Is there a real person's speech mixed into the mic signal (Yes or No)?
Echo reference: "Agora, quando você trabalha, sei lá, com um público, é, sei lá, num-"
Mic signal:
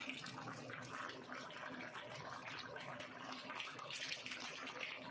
No